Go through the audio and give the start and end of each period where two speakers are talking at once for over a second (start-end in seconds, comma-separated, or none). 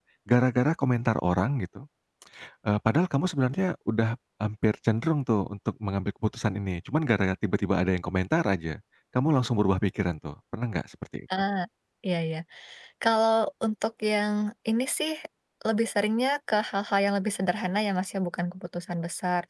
none